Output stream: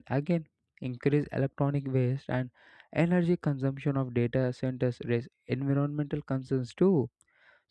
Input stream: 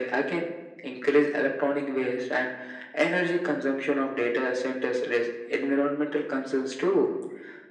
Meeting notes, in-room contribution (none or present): none